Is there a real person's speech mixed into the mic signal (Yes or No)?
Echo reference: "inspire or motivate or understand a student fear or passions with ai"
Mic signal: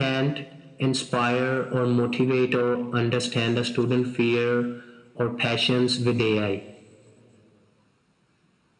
No